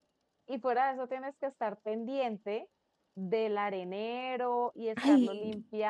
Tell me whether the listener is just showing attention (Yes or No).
Yes